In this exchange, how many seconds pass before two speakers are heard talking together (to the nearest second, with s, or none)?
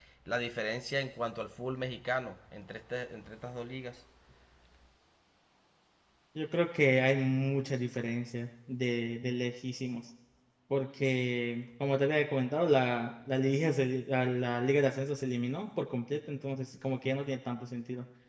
none